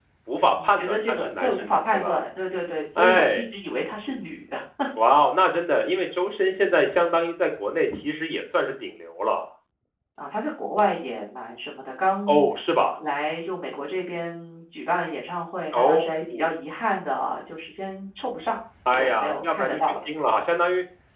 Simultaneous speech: Yes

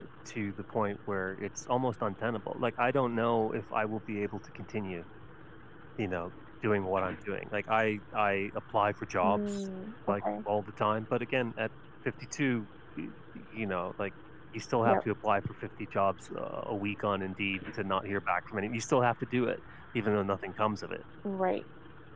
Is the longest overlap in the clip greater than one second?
No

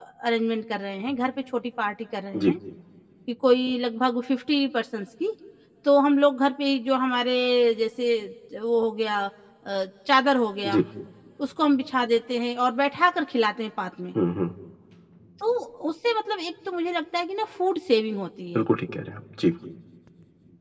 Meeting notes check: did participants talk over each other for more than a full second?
No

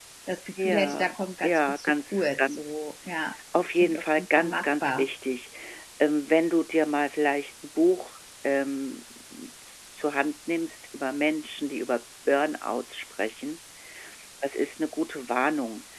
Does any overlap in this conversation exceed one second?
Yes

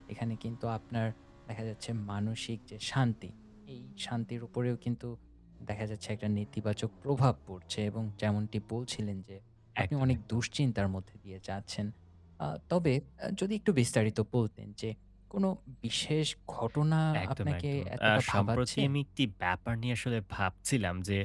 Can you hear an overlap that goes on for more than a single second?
Yes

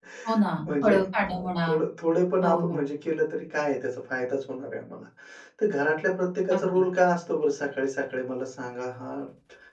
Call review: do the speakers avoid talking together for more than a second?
Yes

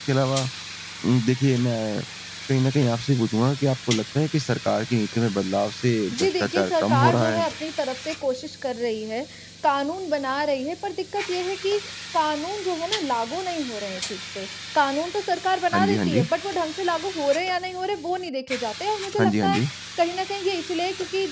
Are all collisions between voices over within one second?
No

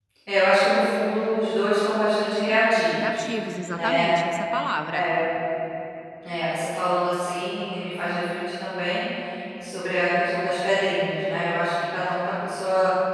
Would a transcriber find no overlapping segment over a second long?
Yes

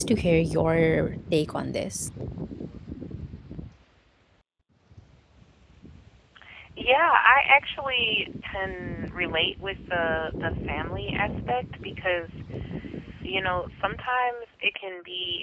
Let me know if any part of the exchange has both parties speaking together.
No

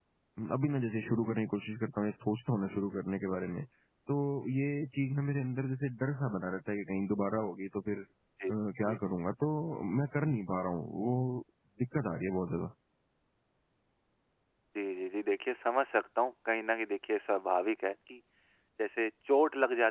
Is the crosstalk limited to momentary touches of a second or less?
Yes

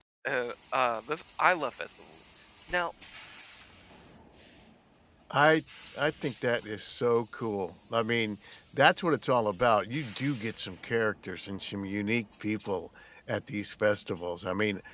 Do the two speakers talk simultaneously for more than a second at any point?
No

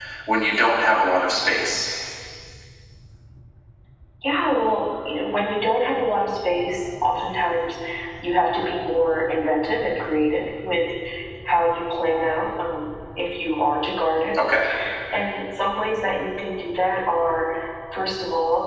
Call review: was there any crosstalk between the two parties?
No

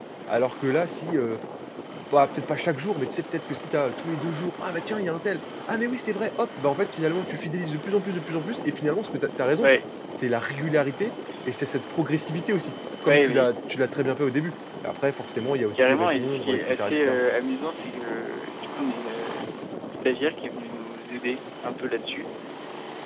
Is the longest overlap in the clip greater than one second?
Yes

